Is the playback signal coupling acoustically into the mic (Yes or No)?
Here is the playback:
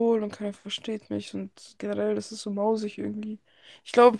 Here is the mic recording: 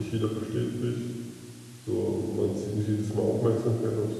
No